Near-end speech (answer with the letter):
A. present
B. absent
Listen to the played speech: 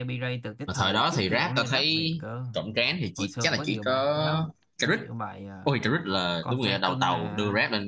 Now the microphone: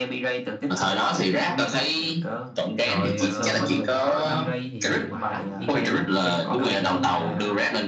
A